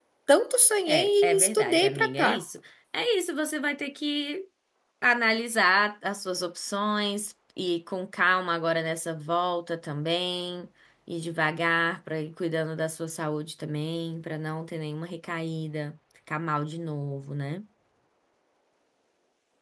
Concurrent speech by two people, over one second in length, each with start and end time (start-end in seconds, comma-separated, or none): 0.9-2.4